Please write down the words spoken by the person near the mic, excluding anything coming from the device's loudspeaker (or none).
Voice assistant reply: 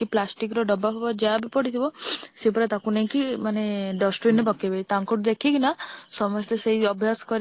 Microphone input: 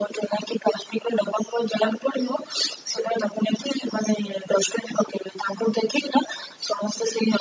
none